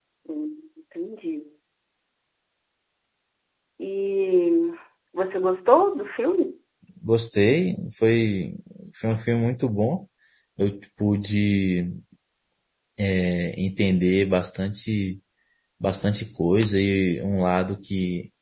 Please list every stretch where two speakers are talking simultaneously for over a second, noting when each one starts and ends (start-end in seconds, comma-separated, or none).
none